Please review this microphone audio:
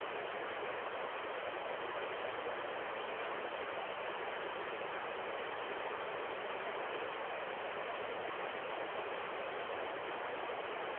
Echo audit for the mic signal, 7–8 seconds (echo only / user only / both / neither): neither